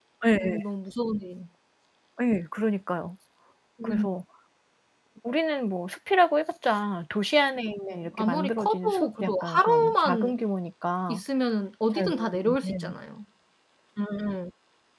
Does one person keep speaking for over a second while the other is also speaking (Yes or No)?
Yes